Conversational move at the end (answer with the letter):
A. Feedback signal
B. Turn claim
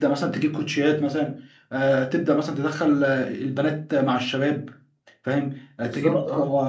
A